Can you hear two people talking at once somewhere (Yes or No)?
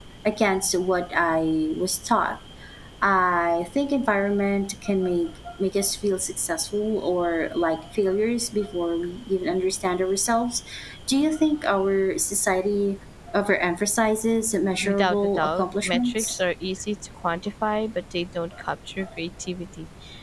Yes